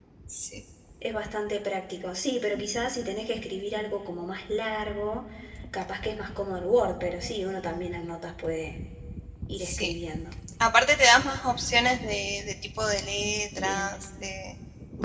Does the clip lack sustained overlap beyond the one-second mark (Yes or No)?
Yes